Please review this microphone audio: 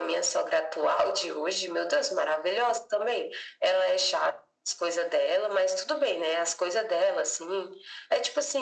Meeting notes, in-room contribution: none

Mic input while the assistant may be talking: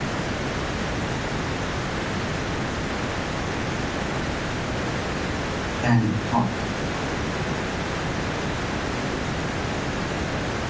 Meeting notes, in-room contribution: present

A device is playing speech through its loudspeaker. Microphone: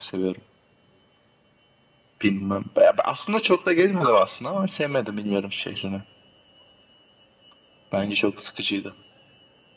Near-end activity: none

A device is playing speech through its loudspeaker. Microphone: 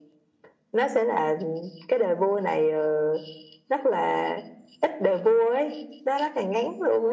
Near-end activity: none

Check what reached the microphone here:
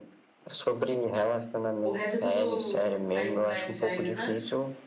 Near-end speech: present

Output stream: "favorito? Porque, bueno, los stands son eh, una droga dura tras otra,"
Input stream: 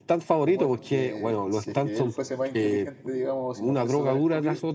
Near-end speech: present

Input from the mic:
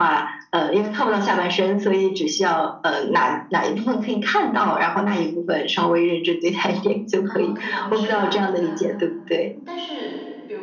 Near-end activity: present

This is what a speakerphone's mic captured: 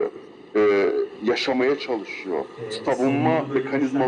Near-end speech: present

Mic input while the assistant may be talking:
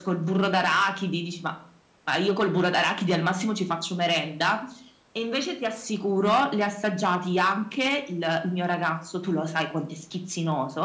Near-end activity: none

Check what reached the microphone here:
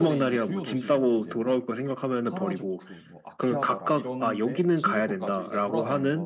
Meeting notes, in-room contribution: present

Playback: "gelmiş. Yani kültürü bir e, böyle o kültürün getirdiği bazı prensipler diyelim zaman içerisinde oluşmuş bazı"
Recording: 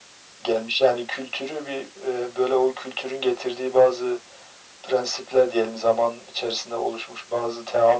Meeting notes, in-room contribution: none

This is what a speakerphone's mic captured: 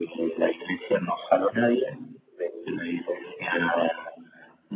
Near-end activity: none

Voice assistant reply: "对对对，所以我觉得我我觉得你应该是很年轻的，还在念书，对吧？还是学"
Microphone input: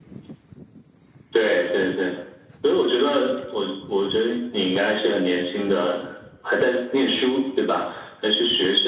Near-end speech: none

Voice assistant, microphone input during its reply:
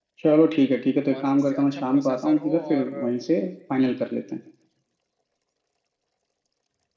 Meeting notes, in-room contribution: present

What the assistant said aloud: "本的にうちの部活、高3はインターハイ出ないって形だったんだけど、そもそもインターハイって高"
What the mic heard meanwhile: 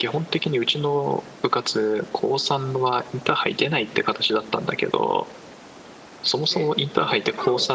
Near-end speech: present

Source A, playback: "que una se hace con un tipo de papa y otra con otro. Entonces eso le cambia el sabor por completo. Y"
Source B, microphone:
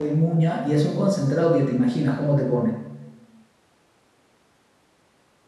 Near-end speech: present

